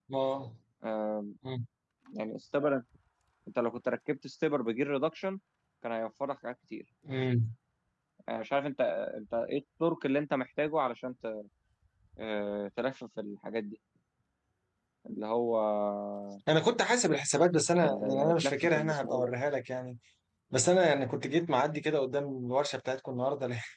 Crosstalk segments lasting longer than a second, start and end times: 17.8-19.3

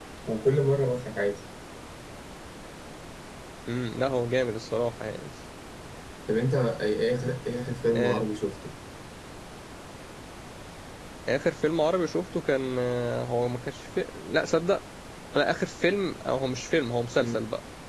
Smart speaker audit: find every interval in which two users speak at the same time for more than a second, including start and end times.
none

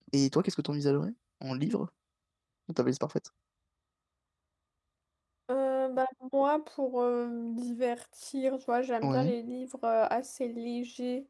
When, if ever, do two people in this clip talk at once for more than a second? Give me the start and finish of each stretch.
none

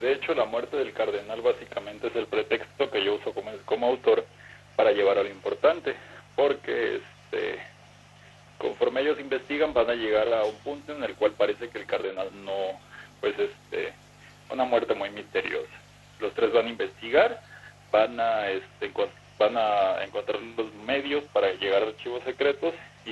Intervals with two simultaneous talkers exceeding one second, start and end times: none

